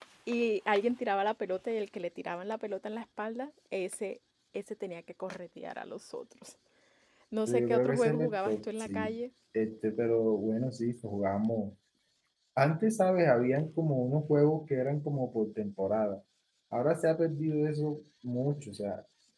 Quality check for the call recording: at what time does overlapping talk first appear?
7.5 s

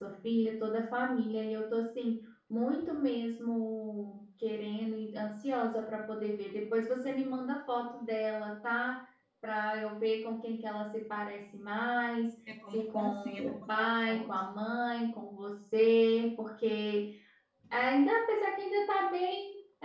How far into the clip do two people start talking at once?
12.7 s

